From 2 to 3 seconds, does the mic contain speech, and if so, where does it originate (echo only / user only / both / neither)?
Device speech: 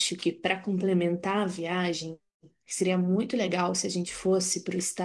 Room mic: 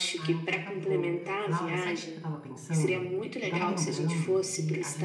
both